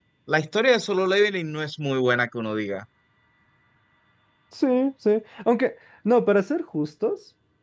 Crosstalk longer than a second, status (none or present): none